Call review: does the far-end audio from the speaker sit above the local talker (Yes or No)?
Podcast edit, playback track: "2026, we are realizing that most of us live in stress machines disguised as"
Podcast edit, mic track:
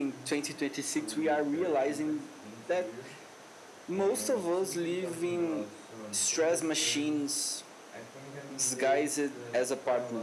Yes